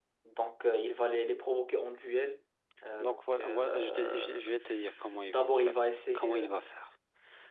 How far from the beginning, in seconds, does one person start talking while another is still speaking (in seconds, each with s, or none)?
3.0 s